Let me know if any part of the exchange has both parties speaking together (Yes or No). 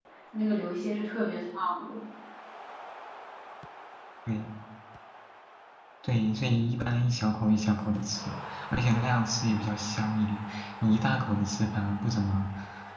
No